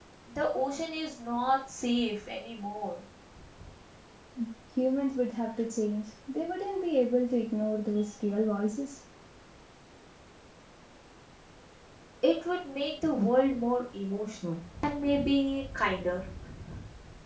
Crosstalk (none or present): none